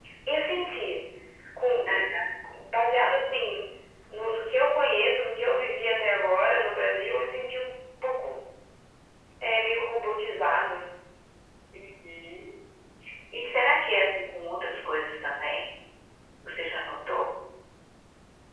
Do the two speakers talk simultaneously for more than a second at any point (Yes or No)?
No